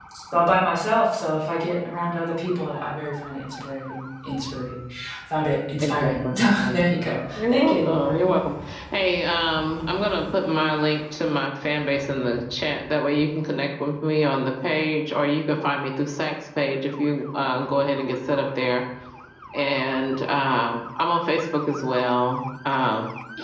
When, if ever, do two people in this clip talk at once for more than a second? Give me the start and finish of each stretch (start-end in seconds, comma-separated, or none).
5.8-8.3